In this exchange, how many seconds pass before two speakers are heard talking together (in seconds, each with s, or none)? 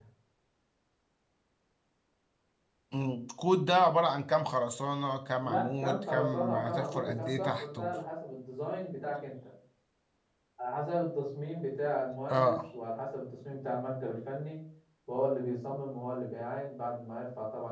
5.4 s